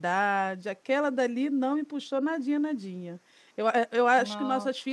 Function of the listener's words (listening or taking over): listening